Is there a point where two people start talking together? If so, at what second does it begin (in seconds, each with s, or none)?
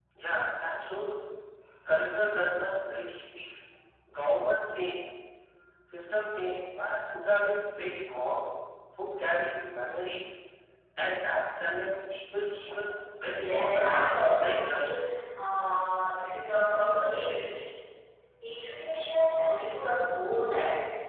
13.2 s